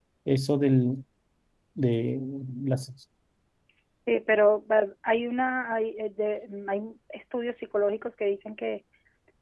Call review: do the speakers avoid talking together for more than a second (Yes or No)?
Yes